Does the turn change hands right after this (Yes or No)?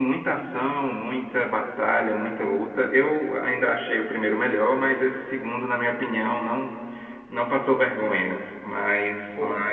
No